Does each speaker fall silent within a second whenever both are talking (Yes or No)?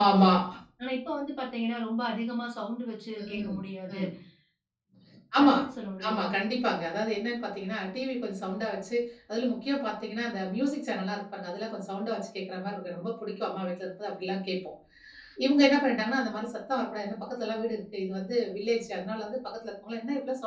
Yes